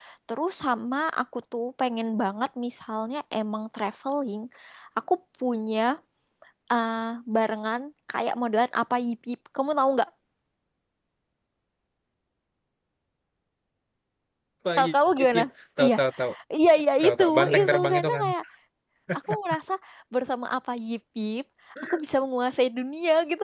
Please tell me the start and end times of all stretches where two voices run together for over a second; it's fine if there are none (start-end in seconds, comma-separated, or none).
17.0-18.2